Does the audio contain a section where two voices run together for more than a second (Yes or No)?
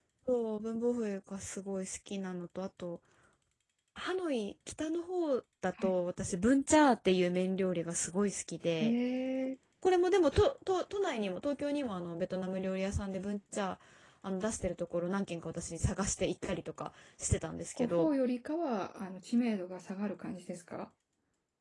No